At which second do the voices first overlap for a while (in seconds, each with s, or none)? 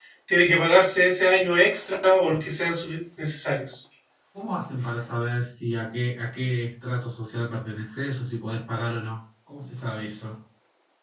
none